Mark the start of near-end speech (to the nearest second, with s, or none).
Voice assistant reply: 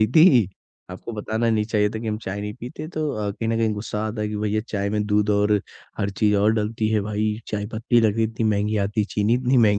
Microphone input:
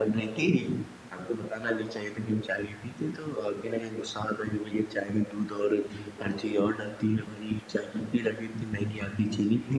none